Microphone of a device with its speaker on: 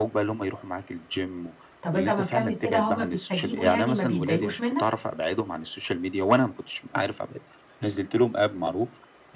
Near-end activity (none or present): present